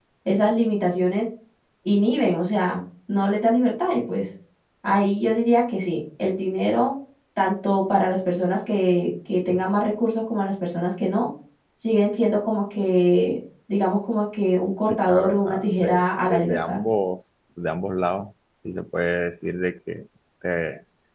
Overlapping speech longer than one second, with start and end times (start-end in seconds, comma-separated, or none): 14.9-16.8